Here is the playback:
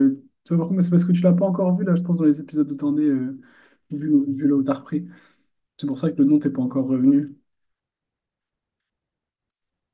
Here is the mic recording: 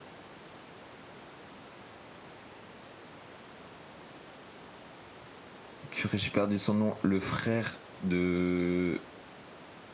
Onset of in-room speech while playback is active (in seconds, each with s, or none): 5.9 s